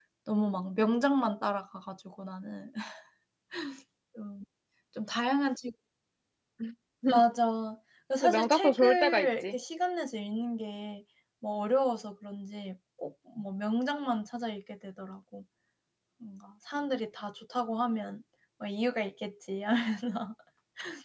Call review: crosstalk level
present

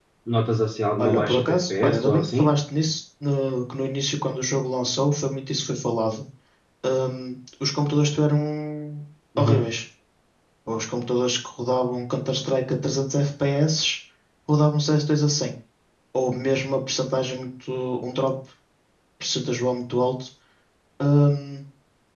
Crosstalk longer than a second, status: present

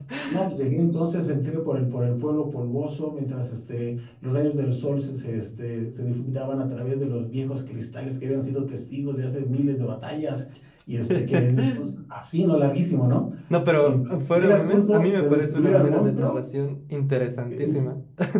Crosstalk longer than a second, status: present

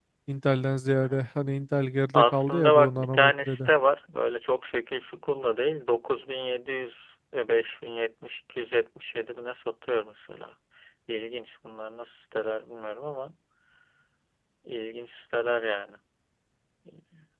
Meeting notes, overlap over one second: present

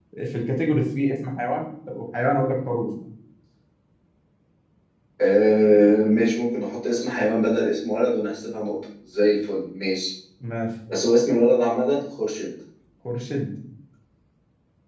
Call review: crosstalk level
none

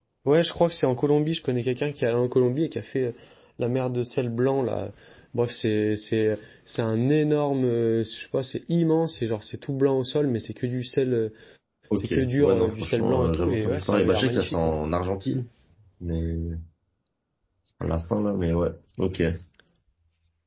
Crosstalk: present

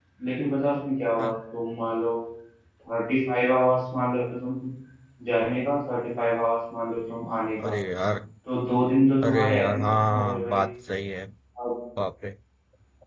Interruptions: present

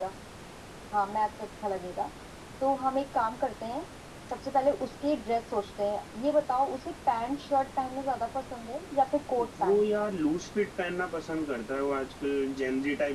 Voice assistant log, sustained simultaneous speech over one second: none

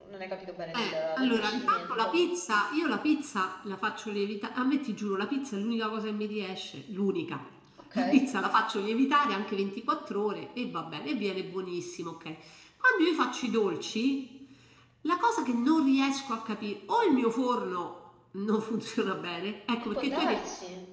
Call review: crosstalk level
present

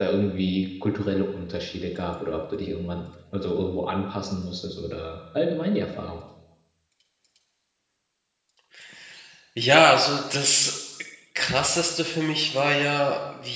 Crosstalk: none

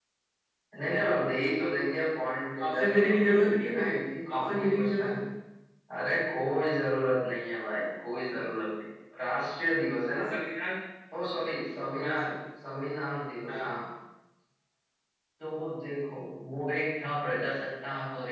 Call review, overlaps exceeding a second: present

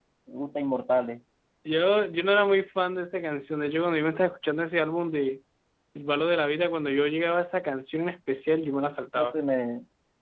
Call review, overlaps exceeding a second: none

